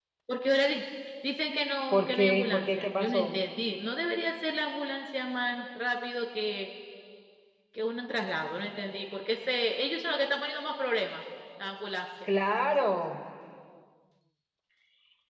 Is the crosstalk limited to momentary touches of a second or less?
No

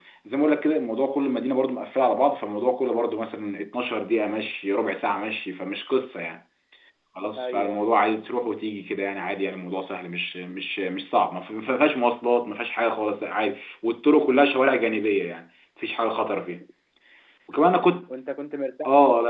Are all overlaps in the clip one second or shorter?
Yes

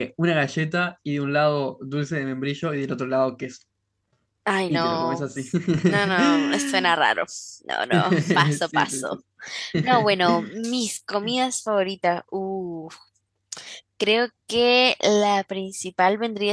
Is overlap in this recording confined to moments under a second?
No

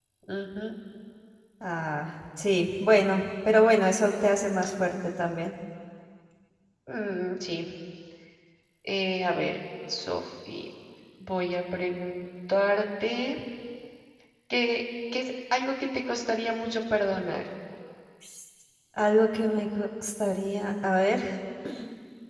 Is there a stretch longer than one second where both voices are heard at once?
No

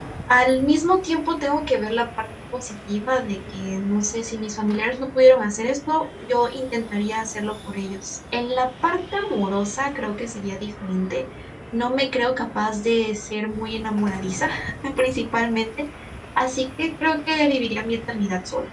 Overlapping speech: No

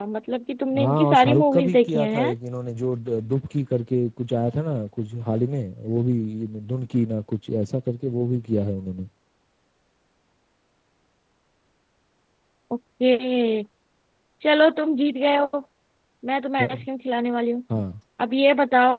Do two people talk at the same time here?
Yes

